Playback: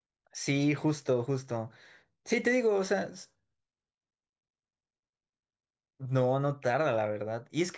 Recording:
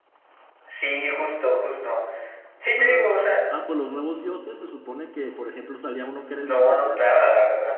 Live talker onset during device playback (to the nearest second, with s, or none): 3 s